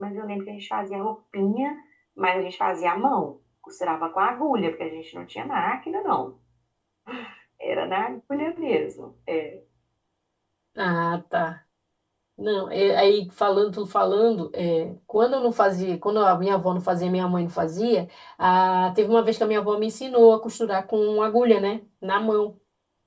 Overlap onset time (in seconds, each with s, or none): none